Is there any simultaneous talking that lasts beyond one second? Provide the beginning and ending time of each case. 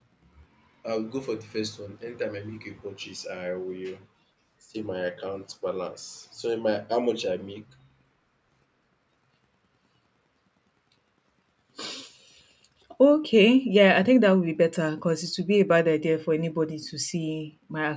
none

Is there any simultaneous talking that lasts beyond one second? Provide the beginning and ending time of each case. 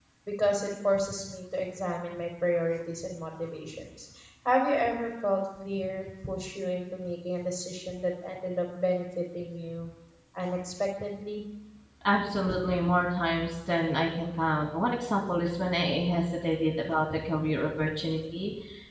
none

